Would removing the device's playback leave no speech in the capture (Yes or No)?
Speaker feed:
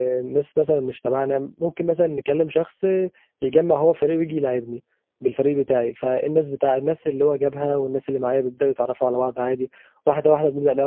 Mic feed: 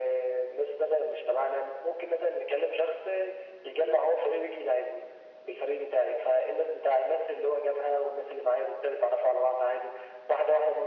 Yes